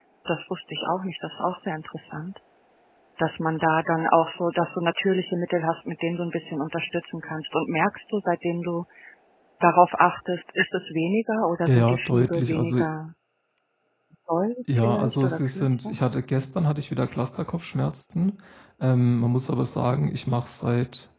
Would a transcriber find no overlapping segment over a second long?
No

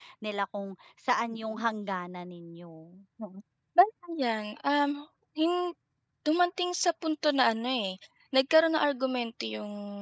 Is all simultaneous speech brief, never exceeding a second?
Yes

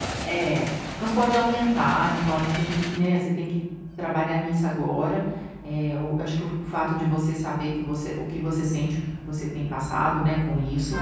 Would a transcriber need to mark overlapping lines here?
No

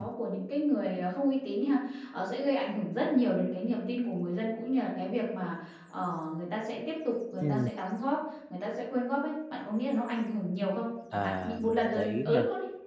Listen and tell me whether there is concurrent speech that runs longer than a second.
Yes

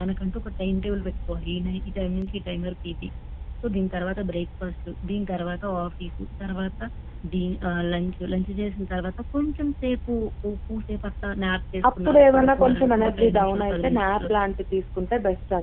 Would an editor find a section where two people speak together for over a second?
Yes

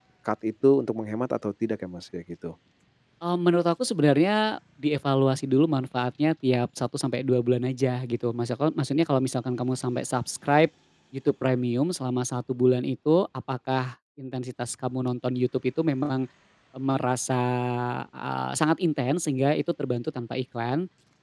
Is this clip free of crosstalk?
Yes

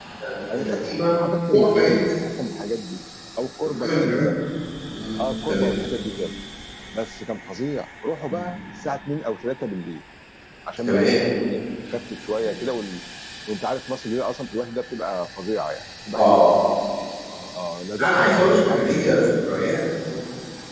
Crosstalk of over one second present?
Yes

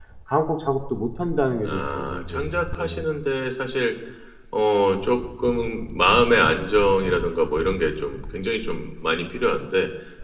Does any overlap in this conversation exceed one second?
Yes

